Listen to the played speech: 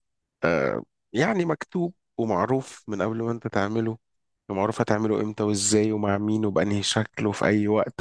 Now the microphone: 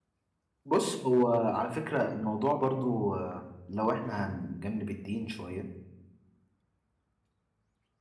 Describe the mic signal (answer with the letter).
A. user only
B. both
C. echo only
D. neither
A